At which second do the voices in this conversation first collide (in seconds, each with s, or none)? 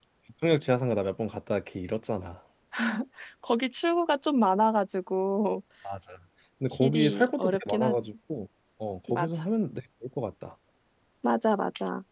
6.7 s